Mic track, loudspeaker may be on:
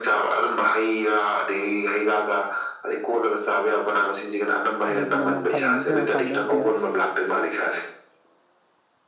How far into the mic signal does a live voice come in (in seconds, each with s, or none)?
4.9 s